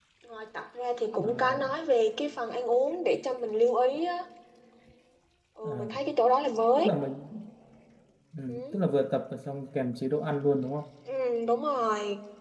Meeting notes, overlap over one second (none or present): none